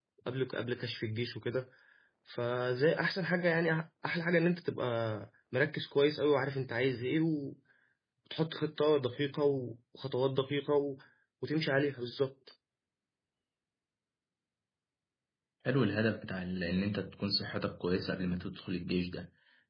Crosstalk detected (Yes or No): No